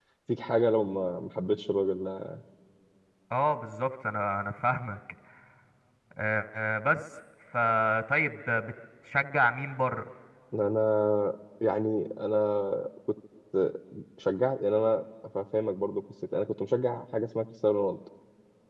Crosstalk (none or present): none